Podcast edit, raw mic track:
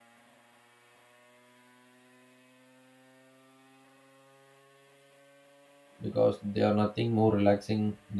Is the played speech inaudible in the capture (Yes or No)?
Yes